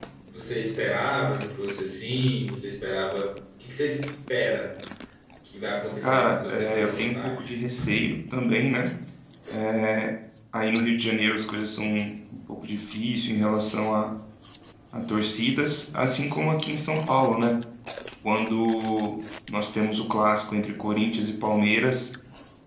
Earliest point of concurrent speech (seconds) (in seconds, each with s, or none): 6.0 s